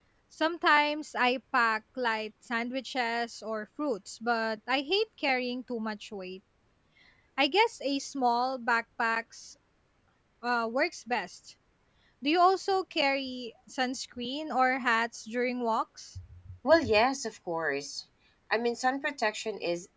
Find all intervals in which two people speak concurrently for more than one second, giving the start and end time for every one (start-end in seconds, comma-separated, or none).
none